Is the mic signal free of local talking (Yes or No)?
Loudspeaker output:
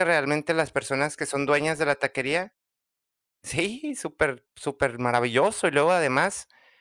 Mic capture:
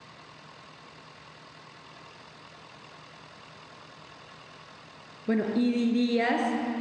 No